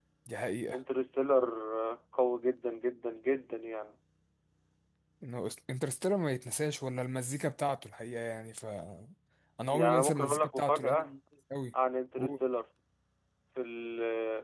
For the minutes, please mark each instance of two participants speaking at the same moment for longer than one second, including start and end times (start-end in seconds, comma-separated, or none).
9.7-11.1